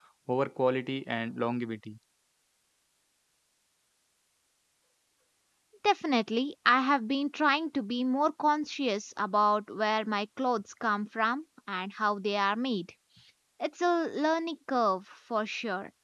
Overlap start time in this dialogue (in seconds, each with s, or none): none